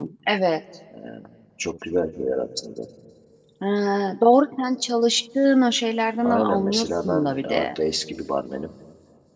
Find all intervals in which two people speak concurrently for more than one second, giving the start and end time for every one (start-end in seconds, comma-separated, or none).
6.2-7.7